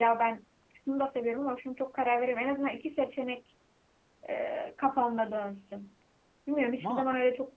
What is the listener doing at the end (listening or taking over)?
listening